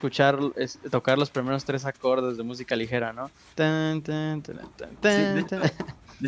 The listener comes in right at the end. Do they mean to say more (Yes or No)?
Yes